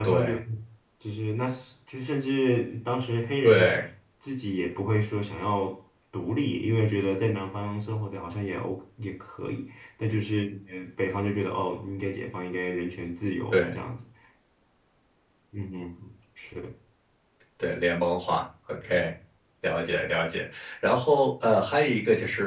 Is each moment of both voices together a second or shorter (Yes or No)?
Yes